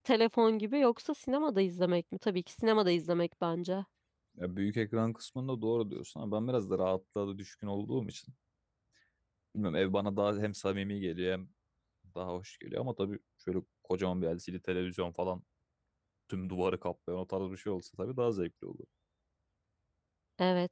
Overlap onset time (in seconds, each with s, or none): none